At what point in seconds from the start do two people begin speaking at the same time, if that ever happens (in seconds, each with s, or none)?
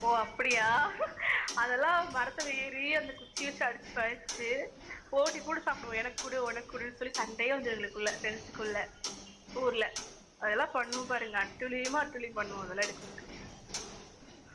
none